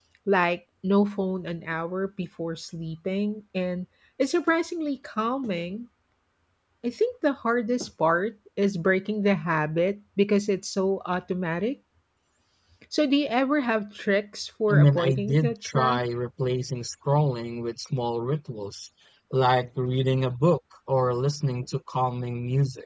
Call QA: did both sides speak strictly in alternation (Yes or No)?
No